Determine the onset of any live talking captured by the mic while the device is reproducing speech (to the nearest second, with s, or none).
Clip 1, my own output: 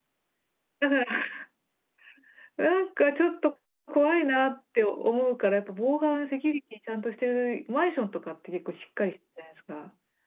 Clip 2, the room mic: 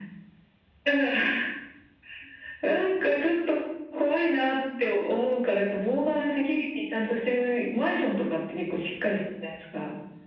none